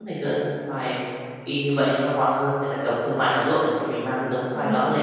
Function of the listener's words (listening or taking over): listening